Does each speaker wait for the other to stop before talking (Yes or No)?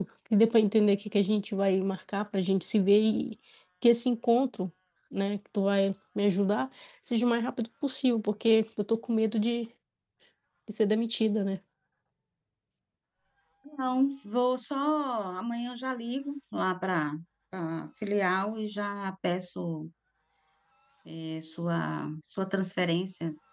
Yes